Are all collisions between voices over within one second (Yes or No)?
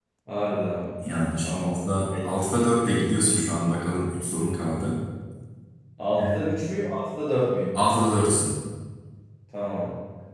Yes